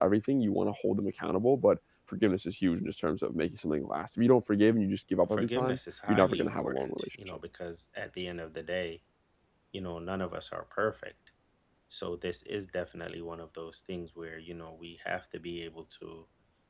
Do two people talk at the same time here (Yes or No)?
Yes